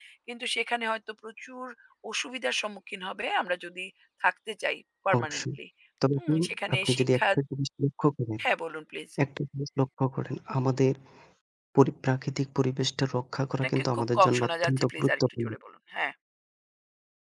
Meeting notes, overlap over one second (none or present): present